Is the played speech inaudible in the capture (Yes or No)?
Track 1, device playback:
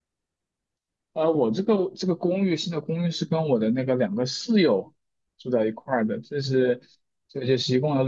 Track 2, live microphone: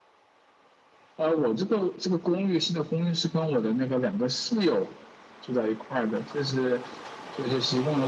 No